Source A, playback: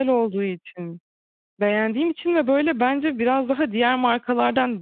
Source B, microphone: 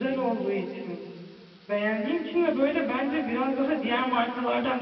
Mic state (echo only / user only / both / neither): echo only